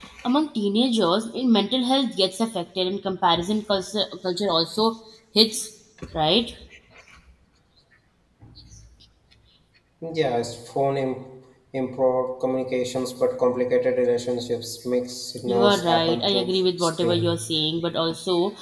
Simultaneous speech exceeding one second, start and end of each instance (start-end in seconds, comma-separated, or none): 15.5-17.4